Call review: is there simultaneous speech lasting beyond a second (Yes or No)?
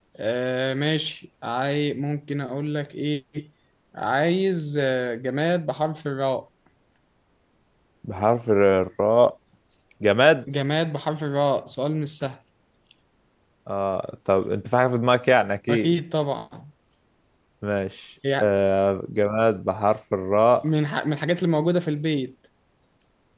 No